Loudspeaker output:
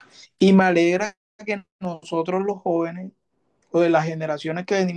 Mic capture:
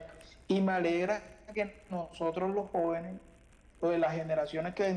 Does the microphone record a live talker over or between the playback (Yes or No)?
No